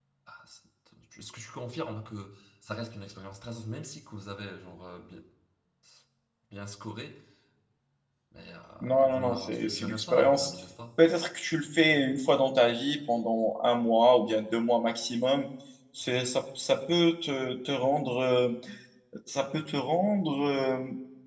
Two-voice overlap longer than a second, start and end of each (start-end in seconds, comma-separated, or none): 8.8-10.5